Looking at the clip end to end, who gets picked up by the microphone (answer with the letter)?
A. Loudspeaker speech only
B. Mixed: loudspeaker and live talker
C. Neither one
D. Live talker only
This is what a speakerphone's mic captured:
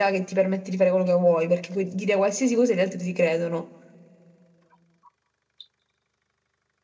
A